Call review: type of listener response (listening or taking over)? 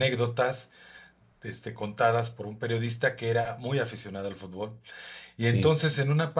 listening